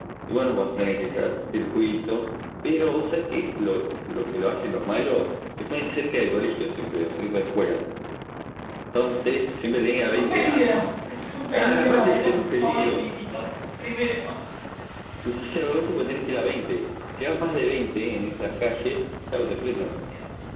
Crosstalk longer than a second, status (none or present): present